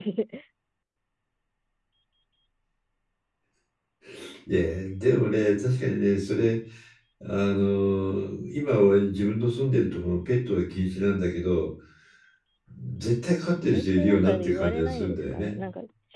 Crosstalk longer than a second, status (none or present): present